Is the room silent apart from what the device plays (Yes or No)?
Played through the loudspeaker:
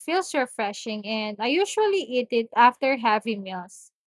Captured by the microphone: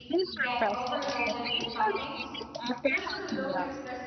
No